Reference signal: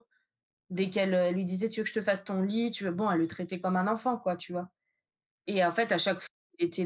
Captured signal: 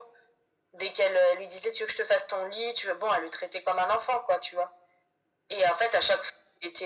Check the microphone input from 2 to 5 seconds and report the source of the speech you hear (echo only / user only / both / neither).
echo only